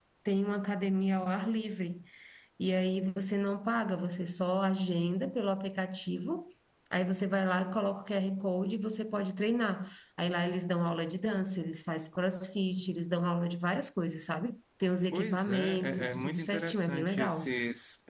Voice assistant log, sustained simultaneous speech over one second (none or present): present